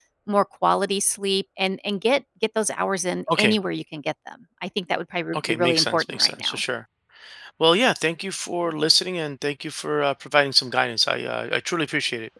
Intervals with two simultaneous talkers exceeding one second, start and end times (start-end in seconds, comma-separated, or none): 5.3-6.6